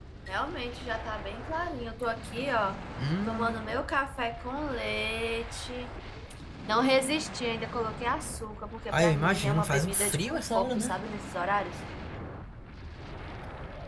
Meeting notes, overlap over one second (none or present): present